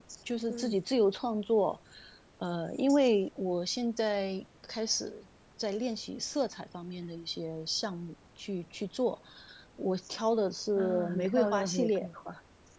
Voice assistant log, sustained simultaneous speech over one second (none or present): present